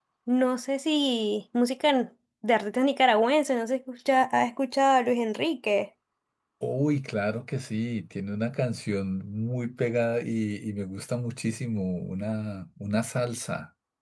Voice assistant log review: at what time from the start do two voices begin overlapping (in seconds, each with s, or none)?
none